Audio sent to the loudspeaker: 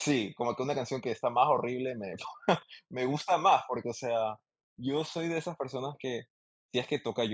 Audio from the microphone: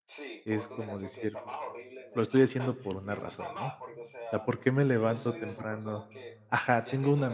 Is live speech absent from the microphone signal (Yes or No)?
No